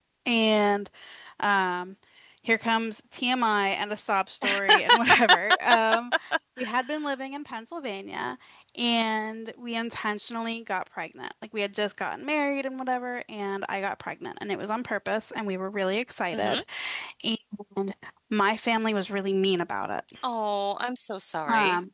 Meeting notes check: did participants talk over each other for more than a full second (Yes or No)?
No